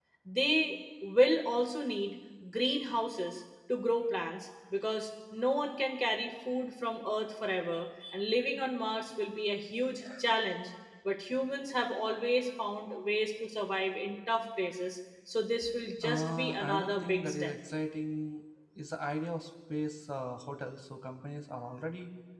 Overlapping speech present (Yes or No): Yes